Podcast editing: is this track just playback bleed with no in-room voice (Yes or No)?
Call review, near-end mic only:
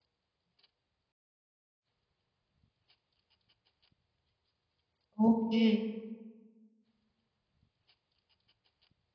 No